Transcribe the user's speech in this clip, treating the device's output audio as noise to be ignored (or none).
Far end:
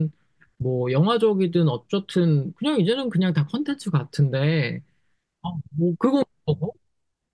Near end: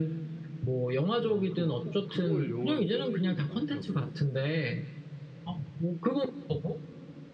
어, 그거 막- 꼭 그걸 영화로 꼽는 분들이 많더라고요.